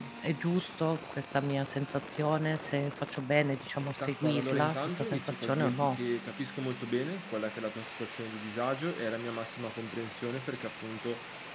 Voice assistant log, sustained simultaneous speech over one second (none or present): present